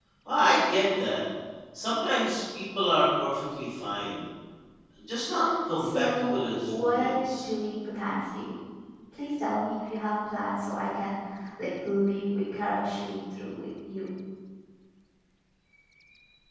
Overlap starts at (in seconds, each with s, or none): 5.8 s